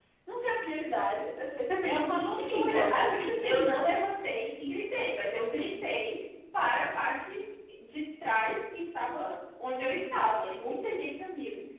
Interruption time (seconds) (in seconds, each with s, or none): 1.8 s